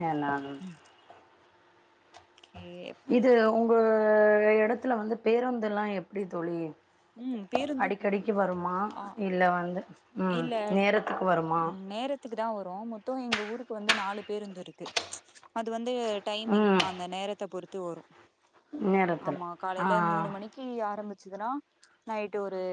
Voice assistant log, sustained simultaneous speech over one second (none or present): none